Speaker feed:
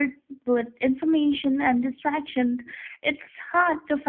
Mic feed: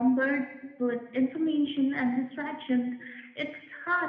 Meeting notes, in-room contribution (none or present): none